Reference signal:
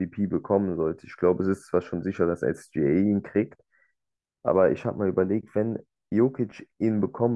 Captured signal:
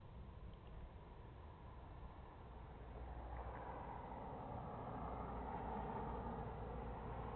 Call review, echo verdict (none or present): none